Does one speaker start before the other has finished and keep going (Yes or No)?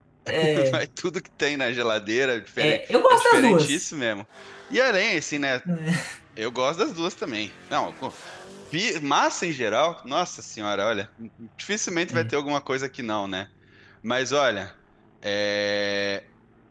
Yes